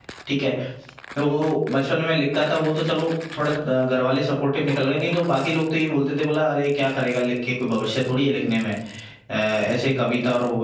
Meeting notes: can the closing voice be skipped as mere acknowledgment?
Yes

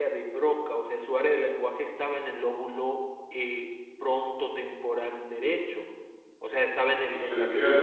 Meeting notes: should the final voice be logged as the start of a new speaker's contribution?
No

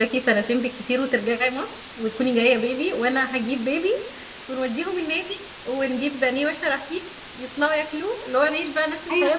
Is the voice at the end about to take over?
Yes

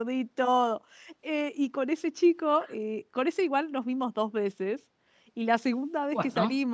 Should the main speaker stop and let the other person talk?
No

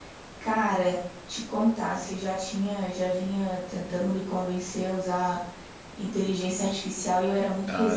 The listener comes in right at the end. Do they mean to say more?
Yes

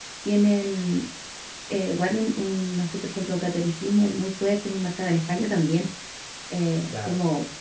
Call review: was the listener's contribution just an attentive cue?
Yes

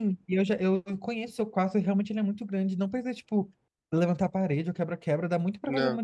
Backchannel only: Yes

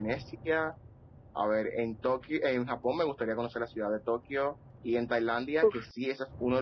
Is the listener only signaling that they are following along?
Yes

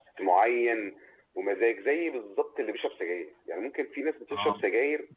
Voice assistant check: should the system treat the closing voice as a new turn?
No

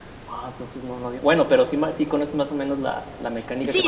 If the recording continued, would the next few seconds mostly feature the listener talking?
Yes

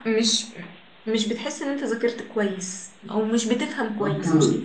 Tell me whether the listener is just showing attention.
No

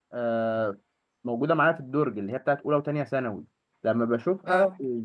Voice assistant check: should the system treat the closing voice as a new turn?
No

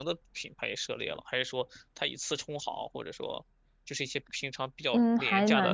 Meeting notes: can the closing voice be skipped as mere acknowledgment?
No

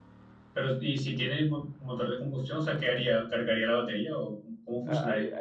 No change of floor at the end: No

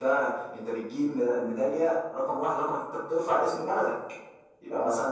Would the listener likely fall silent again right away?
Yes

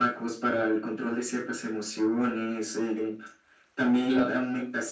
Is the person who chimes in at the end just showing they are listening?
Yes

